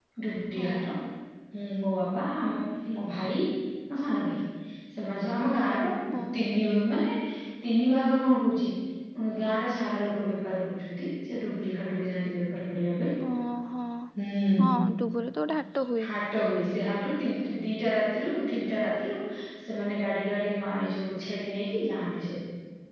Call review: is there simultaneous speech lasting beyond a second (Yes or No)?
No